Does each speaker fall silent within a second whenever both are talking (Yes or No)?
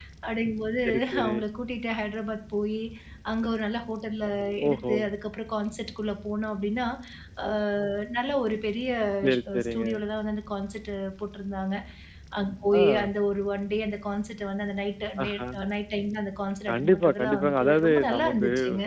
No